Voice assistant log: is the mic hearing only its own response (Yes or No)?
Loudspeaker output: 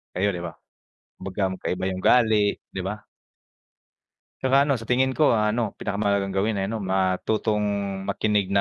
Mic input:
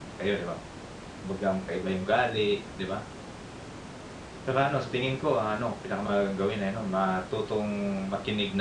Yes